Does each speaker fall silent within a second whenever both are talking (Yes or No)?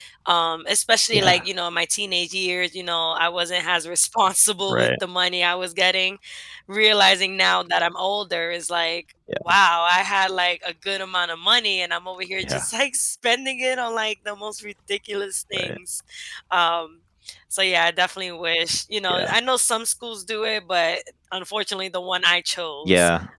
Yes